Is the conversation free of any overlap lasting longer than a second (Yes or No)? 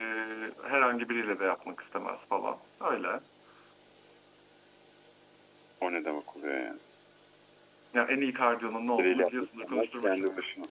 No